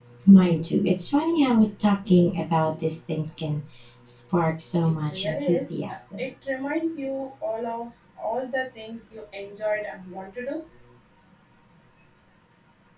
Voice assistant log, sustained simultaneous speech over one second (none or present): present